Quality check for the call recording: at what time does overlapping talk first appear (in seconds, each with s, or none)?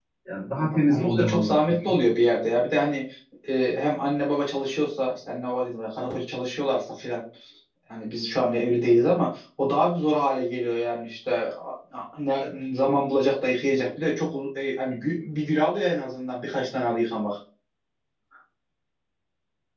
0.5 s